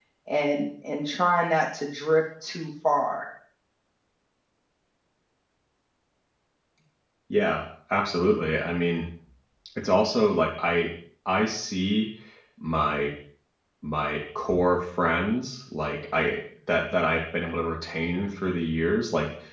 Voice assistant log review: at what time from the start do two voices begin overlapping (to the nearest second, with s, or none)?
none